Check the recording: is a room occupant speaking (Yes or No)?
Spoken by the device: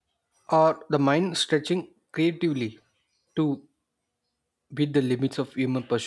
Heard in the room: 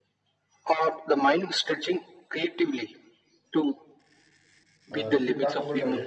Yes